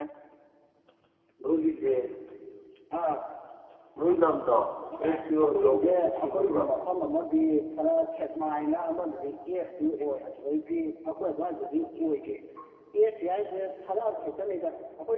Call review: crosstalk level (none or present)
present